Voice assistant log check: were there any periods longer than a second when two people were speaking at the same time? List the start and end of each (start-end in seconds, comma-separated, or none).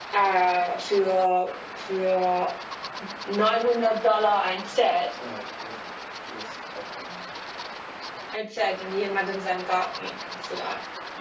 none